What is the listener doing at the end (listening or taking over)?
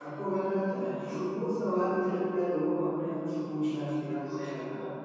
taking over